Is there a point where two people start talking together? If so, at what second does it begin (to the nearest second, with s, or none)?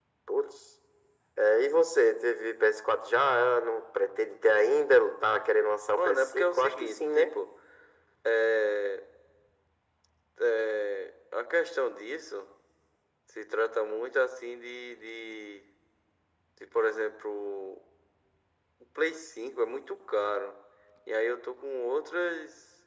6 s